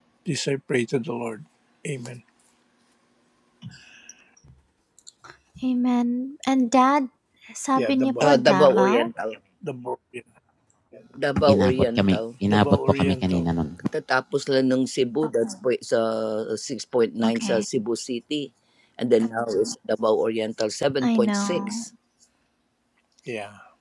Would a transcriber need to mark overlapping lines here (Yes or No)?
Yes